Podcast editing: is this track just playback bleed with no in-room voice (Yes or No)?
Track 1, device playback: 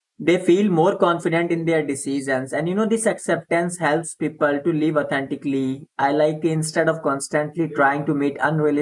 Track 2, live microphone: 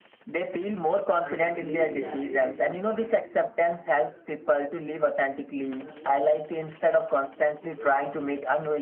No